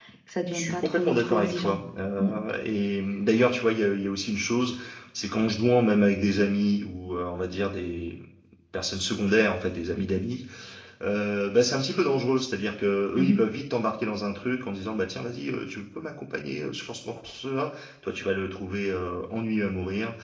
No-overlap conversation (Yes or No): No